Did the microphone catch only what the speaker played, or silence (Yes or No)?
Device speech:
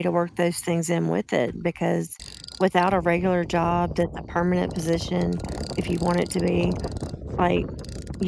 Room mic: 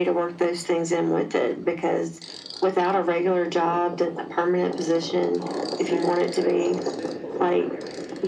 No